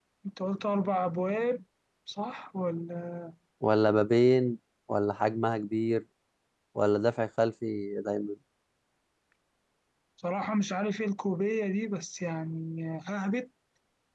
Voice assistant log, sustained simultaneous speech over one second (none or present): none